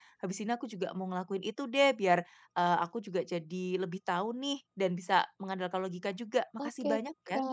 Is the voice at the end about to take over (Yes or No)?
Yes